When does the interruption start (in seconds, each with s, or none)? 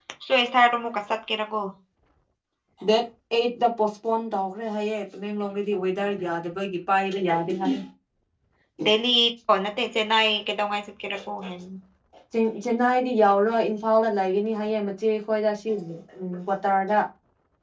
none